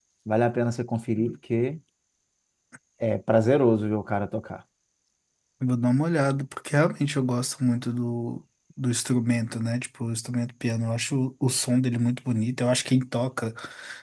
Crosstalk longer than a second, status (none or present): none